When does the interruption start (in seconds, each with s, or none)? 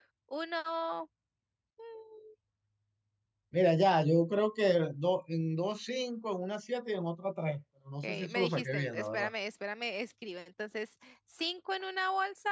8.0 s